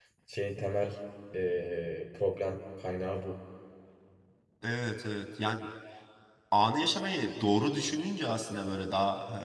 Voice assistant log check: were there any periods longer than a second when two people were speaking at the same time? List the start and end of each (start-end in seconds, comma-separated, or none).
none